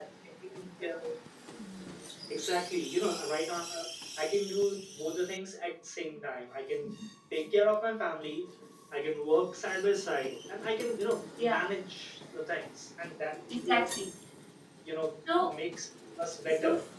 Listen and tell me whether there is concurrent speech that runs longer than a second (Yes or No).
No